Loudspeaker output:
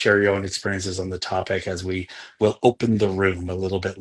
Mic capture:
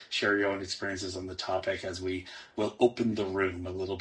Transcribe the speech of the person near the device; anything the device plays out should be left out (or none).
none